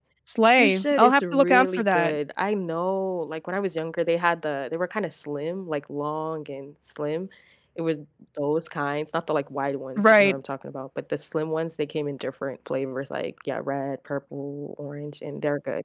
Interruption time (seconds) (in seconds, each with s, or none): 0.6 s